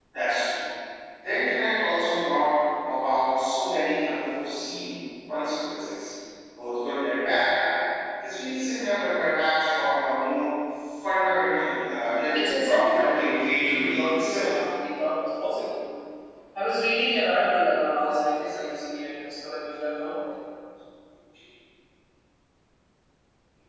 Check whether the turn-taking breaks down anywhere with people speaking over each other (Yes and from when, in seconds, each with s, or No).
Yes, from 12.3 s